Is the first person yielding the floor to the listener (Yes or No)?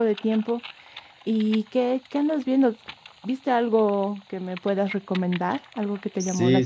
Yes